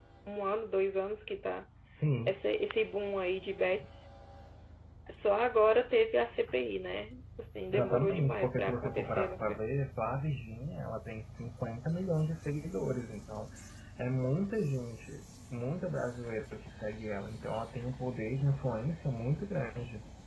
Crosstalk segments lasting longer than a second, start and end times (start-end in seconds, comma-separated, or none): 7.7-9.6